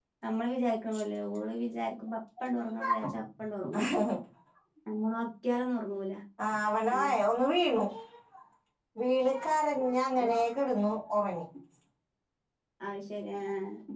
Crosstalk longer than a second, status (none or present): none